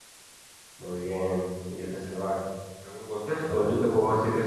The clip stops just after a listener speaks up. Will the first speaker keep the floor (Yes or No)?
Yes